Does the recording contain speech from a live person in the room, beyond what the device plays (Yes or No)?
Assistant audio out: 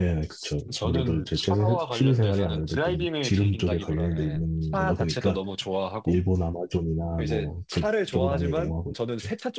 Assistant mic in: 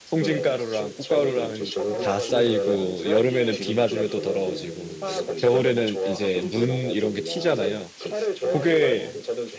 Yes